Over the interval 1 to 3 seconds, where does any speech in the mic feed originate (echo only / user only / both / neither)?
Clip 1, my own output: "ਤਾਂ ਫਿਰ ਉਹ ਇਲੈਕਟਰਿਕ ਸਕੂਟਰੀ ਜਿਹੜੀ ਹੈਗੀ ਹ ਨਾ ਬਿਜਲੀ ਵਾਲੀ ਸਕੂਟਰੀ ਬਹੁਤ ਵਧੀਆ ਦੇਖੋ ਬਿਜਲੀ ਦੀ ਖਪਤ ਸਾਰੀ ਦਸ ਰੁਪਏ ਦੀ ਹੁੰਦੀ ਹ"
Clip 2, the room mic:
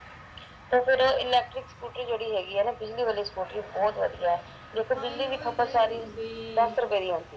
echo only